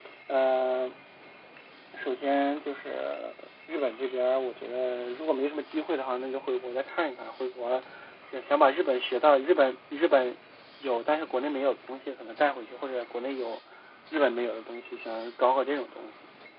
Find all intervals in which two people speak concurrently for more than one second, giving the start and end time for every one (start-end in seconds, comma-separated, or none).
none